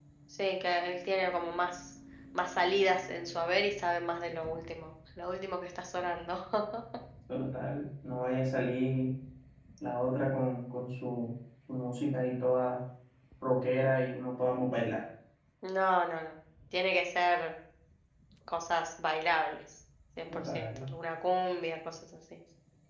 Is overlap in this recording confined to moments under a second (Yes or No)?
Yes